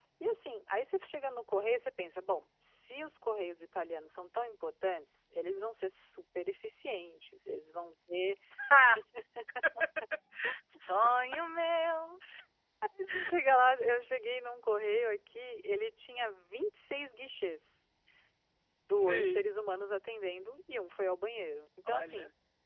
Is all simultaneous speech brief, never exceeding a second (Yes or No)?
Yes